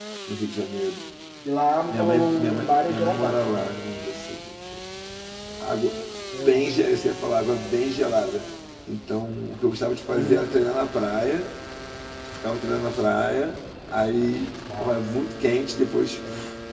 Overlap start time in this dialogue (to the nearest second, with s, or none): 2 s